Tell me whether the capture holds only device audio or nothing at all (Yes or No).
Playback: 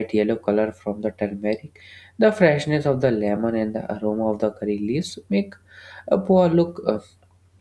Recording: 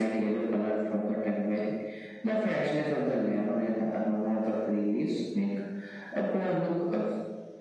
Yes